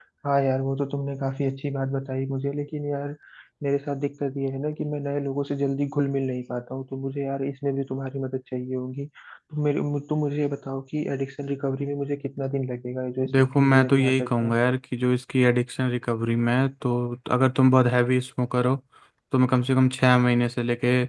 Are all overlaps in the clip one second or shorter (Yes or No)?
No